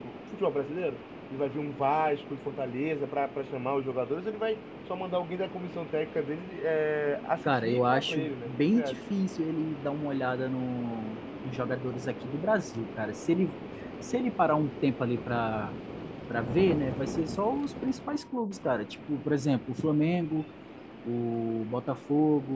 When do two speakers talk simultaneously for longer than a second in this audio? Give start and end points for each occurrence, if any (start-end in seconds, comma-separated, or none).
7.4-9.0